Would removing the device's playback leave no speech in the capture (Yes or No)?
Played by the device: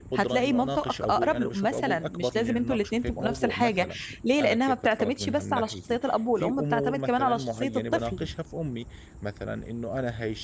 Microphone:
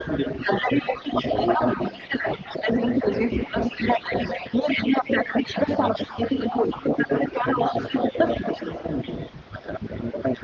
Yes